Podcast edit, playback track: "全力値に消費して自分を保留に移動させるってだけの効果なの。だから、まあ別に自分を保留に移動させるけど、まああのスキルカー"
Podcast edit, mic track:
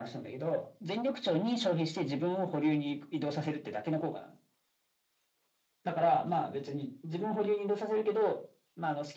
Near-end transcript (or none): none